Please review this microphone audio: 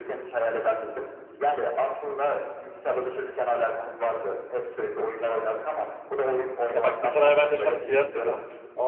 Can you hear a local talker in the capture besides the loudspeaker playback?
Yes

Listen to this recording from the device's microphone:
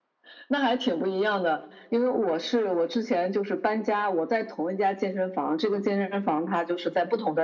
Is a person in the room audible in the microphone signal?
No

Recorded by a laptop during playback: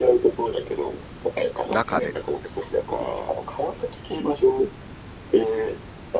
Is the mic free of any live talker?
No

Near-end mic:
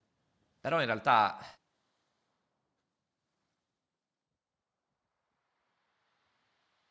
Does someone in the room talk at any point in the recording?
Yes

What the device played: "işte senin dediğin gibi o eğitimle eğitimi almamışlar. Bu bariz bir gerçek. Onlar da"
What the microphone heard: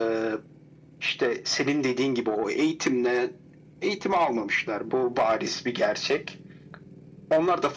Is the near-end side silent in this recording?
Yes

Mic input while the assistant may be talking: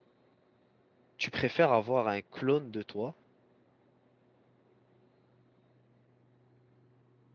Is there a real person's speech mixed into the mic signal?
Yes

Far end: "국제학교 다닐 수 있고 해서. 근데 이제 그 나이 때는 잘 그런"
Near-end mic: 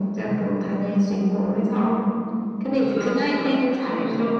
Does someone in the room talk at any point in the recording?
Yes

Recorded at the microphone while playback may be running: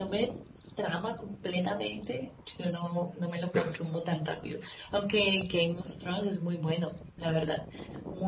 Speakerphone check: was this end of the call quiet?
No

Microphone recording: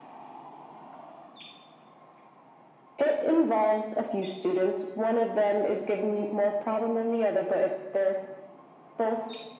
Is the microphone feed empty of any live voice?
Yes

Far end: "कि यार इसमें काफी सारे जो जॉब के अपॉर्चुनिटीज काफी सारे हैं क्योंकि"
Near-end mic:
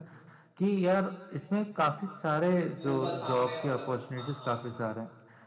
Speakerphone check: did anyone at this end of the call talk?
Yes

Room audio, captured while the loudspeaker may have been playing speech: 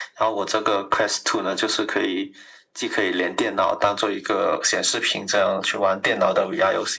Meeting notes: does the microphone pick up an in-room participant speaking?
No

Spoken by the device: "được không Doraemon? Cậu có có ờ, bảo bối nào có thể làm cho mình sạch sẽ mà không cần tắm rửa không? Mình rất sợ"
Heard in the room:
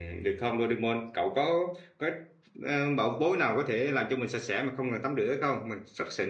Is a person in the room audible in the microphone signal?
No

